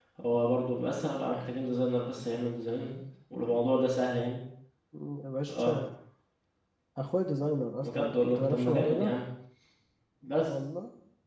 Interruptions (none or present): present